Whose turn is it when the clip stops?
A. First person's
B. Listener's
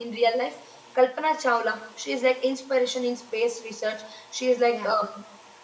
A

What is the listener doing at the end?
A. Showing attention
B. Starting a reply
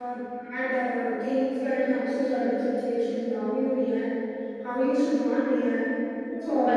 B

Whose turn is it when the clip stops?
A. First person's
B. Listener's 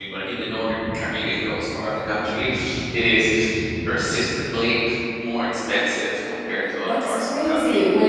B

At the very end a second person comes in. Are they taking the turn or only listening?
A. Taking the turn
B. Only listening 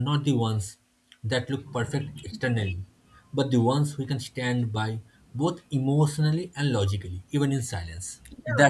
A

